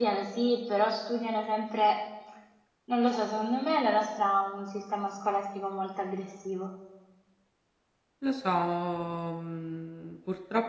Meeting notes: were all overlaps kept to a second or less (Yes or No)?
Yes